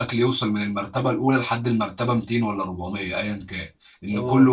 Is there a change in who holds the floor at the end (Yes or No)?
No